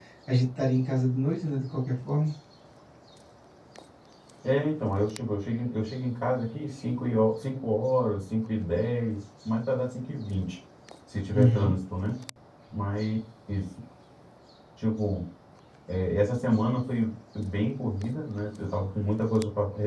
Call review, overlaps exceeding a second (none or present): none